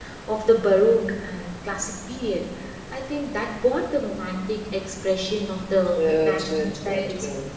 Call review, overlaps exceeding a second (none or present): present